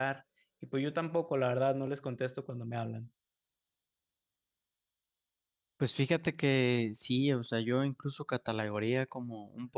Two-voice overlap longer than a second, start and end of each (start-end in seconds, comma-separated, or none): none